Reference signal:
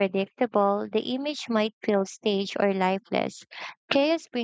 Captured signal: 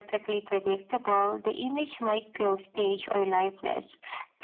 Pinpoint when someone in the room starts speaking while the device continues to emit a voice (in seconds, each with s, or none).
none